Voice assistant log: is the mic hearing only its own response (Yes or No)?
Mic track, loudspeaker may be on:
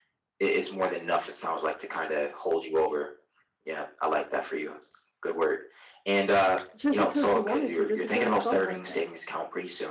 No